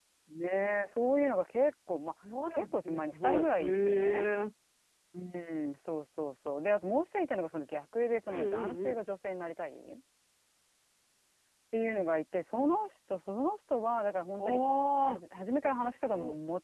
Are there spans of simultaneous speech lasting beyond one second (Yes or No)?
Yes